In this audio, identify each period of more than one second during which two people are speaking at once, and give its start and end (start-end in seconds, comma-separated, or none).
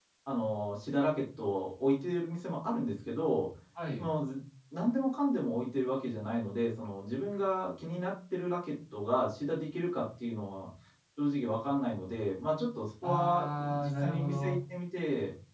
13.0-14.6